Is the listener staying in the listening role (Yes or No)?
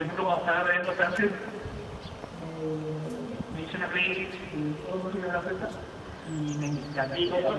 No